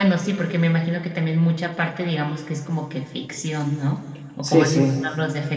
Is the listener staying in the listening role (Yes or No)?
Yes